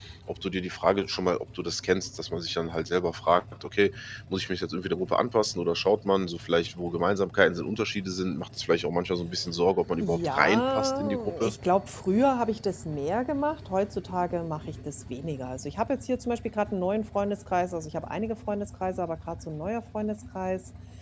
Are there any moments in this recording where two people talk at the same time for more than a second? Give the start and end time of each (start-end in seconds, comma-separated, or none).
10.0-11.5